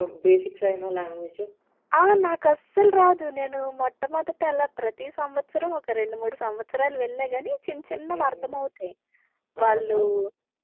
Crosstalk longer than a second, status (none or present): none